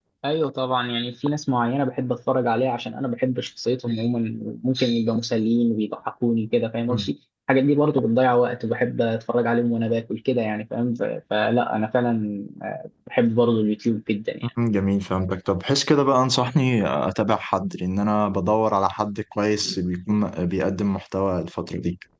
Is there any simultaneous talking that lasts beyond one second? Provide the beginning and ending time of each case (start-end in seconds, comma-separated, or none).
none